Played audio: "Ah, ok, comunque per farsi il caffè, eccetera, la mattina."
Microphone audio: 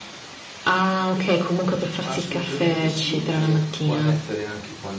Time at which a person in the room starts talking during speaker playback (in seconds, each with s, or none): 2.0 s